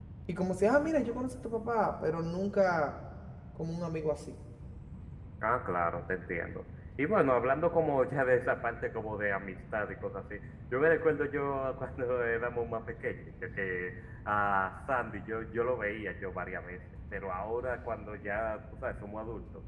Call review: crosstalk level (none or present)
none